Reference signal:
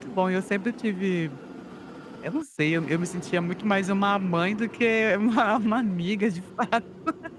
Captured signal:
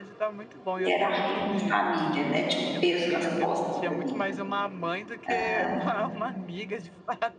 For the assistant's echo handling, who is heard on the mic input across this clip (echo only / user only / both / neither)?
both